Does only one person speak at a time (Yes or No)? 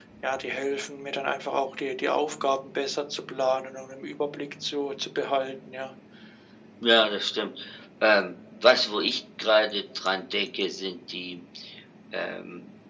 Yes